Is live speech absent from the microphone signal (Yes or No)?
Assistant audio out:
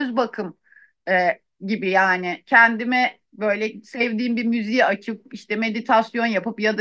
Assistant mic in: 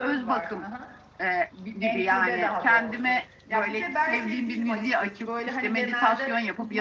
No